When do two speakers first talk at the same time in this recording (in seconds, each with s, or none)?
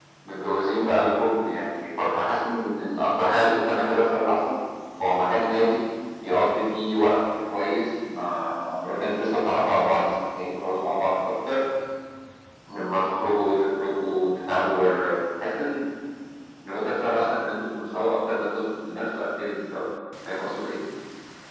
none